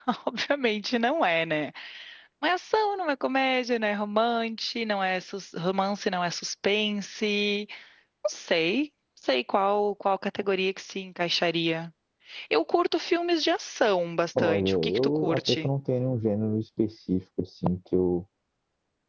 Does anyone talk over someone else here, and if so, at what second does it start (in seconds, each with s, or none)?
14.3 s